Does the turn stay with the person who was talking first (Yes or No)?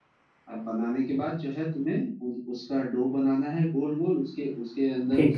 Yes